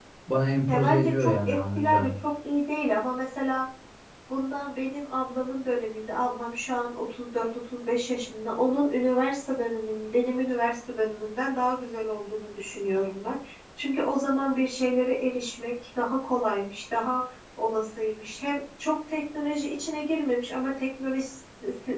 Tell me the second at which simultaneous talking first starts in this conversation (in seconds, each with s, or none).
0.7 s